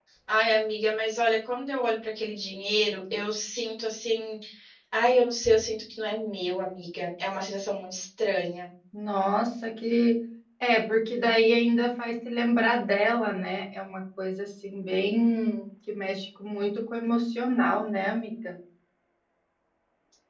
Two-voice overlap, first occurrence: none

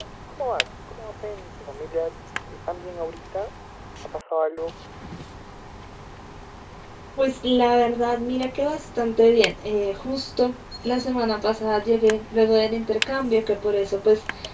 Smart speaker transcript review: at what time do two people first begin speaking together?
none

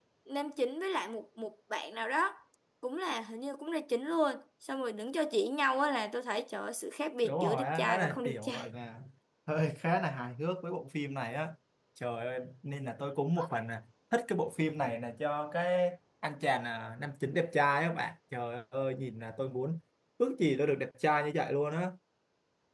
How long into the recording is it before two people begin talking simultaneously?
7.2 s

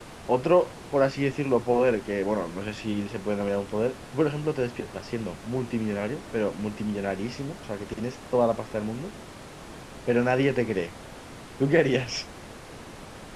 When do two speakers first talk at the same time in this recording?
none

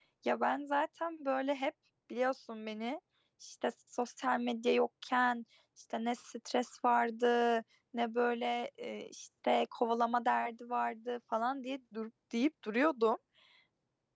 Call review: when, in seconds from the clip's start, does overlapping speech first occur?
none

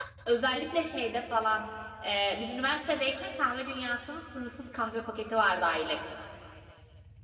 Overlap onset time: none

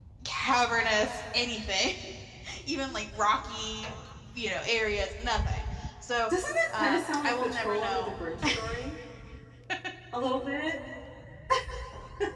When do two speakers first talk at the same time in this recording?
6.7 s

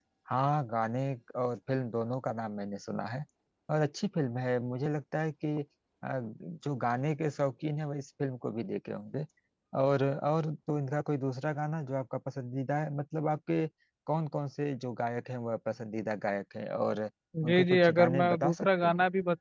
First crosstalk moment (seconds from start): 17.3 s

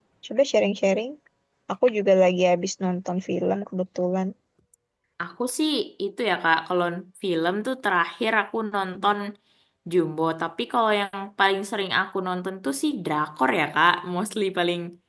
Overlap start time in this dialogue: none

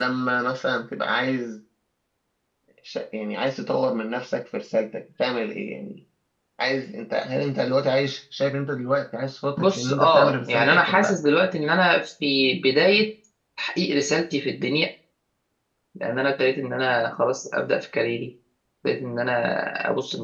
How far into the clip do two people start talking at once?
9.6 s

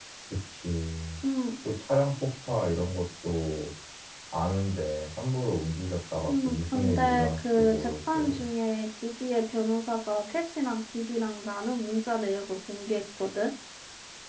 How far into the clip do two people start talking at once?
6.3 s

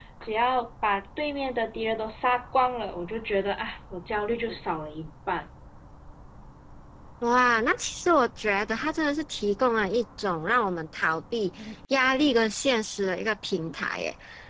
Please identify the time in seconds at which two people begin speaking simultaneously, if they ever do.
none

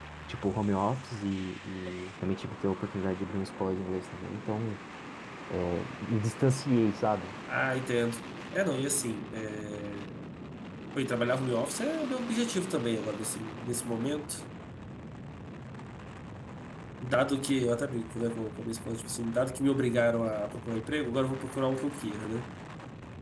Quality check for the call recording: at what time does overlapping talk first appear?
none

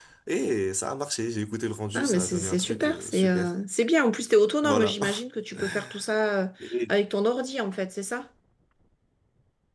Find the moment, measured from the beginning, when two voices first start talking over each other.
1.9 s

